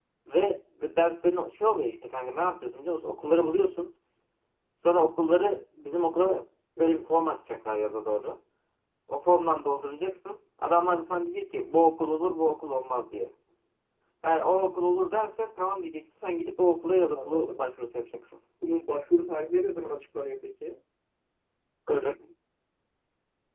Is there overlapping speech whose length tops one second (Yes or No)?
No